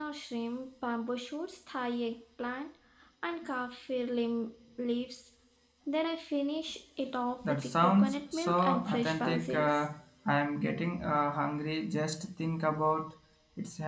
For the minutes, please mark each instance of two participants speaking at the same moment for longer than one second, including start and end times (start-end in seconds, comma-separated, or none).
7.4-9.8